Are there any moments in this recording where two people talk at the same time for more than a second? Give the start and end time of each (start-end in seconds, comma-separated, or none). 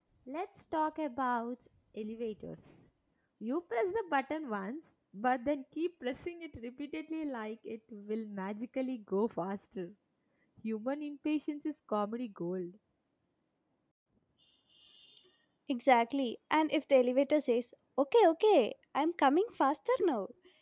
none